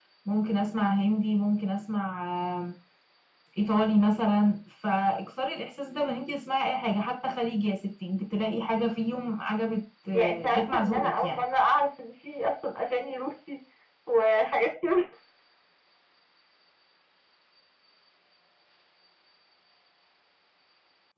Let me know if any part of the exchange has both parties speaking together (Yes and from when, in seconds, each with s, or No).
Yes, from 10.1 s